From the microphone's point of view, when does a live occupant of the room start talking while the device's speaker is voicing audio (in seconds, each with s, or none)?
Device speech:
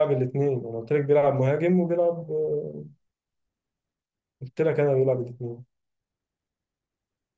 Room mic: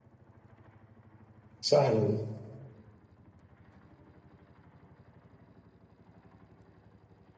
1.6 s